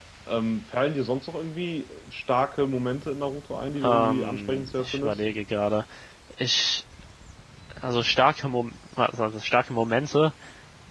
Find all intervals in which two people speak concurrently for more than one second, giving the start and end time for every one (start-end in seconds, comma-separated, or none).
3.8-5.2